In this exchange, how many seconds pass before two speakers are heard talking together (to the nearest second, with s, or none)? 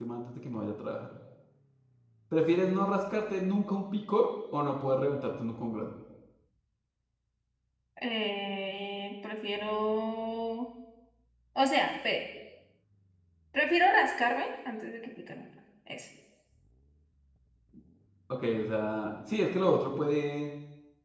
none